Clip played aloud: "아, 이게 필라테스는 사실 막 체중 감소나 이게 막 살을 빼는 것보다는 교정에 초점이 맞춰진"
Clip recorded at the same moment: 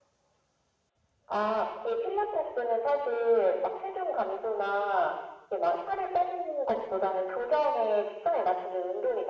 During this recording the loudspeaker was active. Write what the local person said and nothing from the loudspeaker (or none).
none